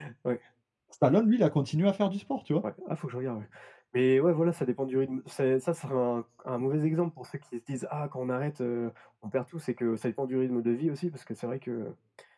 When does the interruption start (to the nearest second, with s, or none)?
none